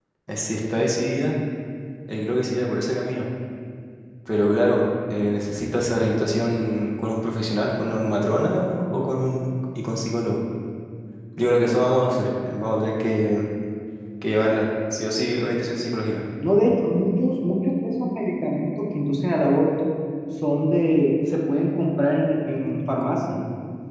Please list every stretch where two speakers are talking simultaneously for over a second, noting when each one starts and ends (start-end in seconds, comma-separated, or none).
none